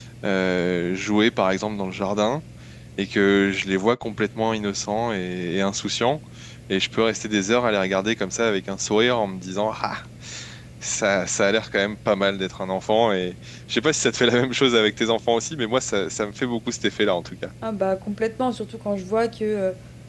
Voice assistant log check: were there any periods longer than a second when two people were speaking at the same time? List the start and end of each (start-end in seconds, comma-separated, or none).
none